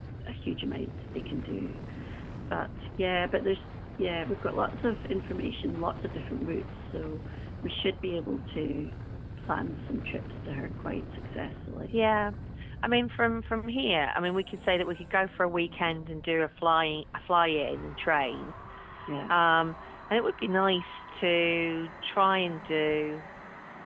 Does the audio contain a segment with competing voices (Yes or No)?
No